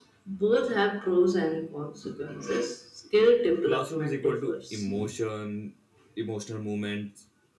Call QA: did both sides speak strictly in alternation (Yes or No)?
No